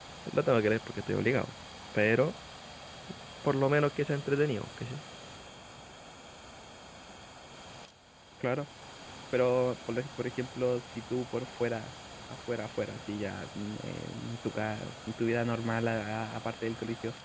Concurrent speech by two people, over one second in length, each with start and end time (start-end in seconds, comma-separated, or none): none